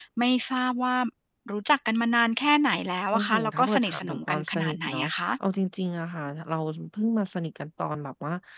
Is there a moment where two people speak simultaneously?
Yes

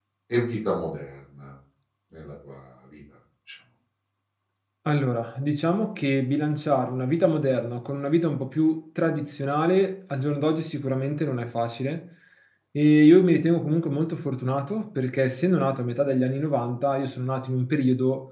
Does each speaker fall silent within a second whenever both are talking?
Yes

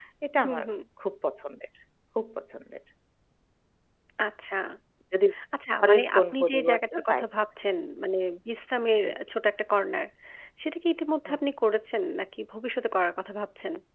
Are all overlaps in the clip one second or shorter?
No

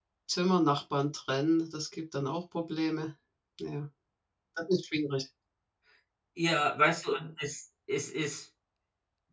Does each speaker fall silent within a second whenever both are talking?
Yes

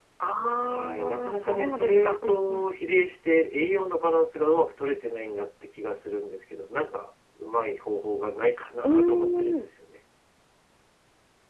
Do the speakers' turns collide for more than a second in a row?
Yes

